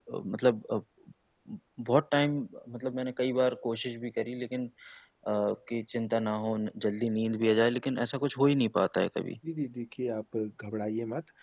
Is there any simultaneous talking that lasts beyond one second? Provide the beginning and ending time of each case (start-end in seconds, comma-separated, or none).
none